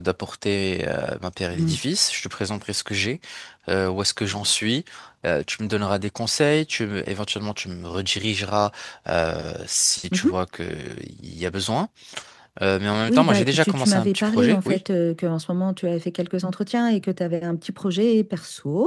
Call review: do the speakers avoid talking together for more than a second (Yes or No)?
No